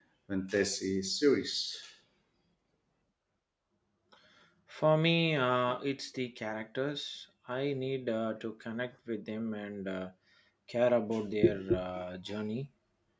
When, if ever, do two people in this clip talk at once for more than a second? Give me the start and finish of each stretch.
none

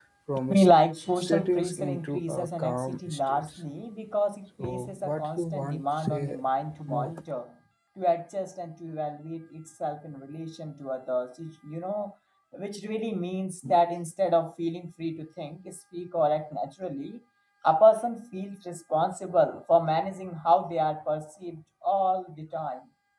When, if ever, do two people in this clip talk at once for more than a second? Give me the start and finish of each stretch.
1.2-3.6, 4.6-6.4

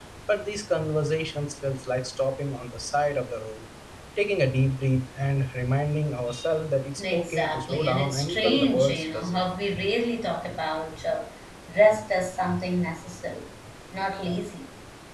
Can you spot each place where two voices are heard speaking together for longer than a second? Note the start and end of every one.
7.0-9.5

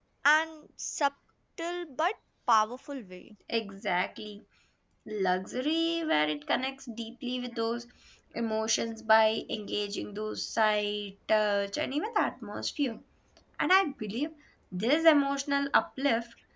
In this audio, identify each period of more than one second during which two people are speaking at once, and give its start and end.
none

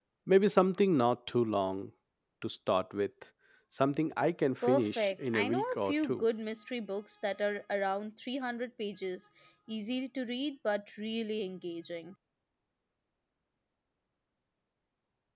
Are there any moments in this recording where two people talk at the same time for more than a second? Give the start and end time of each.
4.6-6.2

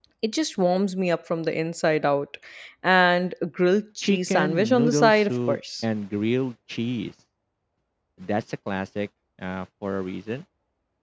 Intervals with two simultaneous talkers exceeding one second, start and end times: 4.0-5.8

